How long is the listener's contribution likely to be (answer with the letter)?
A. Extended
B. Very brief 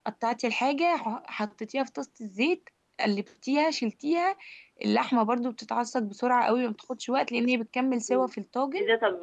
A